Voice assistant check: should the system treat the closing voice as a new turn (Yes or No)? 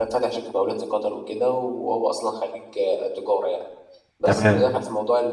No